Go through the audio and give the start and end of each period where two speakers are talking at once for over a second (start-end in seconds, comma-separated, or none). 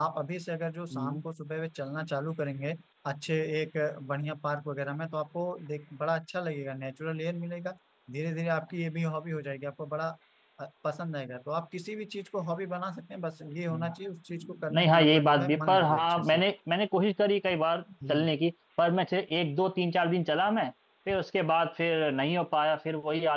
14.8-16.4